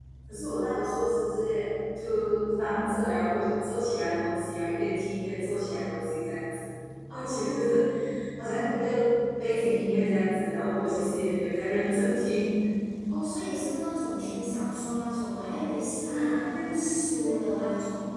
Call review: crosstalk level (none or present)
present